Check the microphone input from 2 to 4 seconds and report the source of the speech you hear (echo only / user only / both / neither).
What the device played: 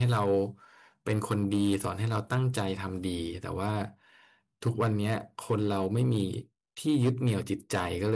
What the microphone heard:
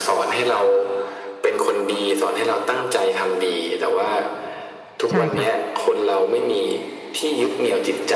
echo only